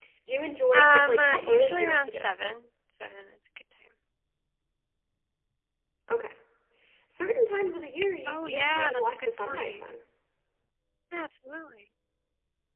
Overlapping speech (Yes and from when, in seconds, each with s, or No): Yes, from 0.7 s